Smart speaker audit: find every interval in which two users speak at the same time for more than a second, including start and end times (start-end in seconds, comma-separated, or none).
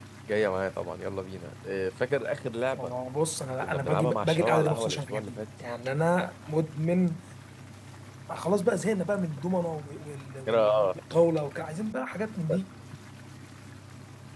3.6-5.4